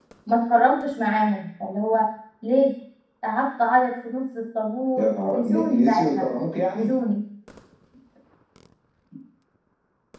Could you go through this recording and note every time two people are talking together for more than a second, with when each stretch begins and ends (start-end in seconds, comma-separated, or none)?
5.0-6.2